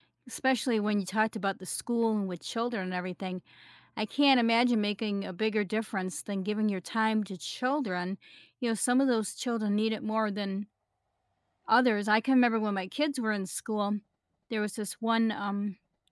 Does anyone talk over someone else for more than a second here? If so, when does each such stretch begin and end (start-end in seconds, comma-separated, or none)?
none